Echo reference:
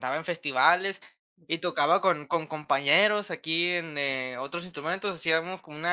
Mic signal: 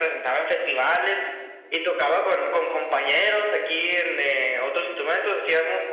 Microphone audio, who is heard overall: echo only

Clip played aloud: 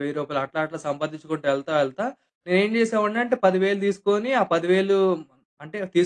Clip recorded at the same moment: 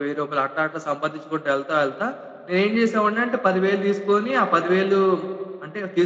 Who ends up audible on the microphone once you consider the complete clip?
echo only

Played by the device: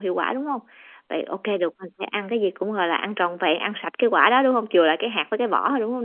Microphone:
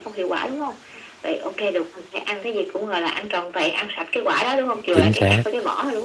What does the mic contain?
both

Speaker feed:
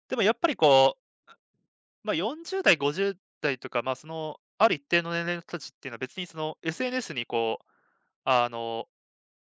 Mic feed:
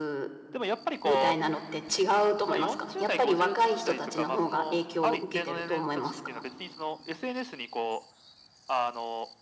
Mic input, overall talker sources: both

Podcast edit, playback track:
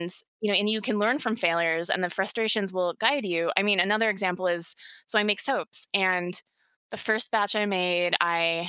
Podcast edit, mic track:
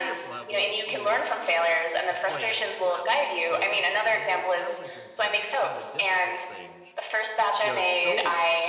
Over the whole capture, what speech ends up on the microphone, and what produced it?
both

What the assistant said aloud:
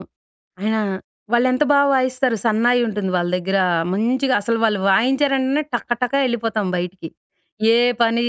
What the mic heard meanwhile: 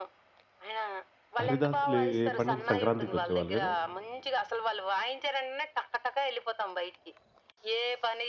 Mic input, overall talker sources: both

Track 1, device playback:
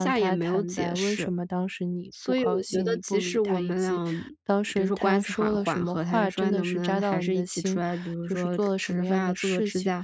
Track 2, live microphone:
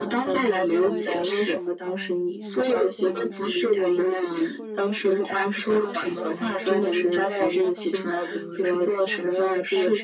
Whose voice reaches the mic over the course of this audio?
both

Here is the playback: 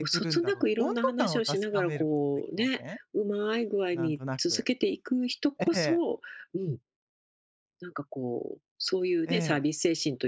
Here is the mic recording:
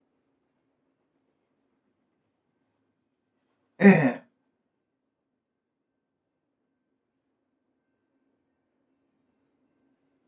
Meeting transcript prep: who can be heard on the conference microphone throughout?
user only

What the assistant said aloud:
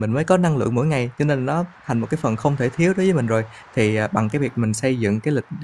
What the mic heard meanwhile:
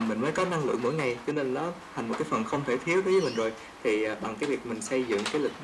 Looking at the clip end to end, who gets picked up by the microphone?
echo only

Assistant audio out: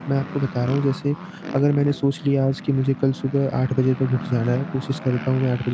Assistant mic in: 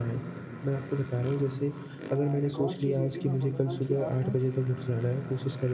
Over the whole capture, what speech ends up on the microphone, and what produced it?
both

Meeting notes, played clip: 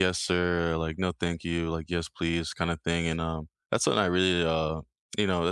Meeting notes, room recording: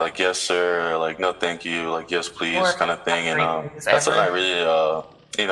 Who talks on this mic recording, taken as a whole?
both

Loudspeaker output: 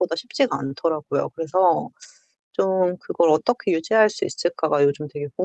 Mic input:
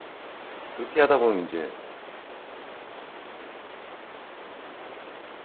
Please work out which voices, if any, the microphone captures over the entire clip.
user only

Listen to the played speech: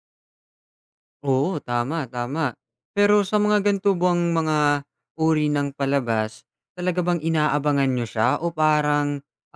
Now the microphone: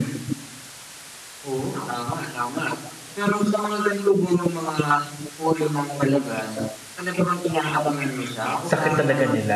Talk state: both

